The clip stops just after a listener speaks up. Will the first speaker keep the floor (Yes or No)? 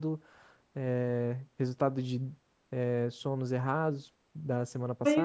No